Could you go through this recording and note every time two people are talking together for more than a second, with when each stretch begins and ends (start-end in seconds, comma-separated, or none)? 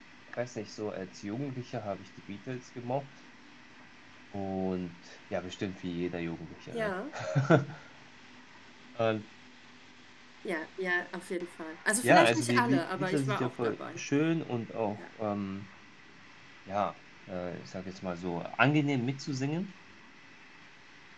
12.0-14.0